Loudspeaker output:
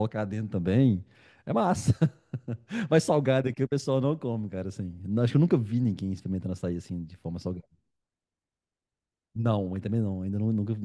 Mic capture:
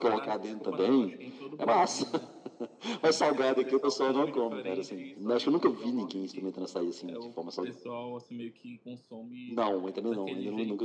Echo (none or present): present